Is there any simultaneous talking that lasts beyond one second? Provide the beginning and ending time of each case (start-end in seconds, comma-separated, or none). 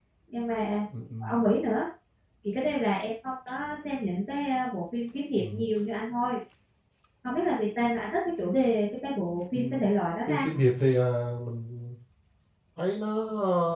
none